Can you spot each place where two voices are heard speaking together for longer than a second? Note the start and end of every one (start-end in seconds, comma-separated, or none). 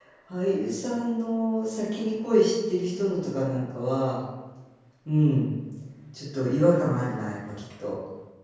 none